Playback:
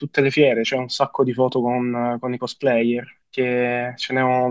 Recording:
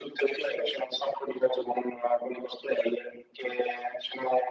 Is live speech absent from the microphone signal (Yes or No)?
Yes